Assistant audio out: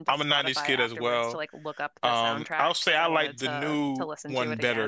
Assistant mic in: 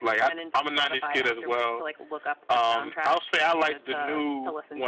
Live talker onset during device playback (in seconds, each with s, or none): none